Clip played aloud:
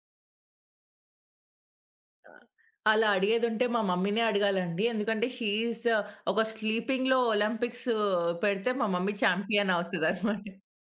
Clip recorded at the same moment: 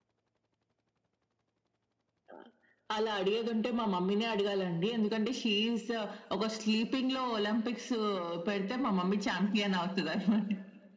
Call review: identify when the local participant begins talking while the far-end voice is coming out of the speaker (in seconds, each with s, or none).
none